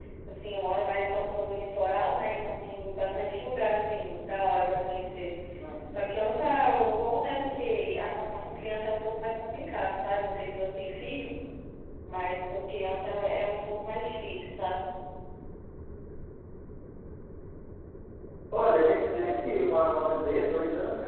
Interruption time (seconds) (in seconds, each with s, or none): none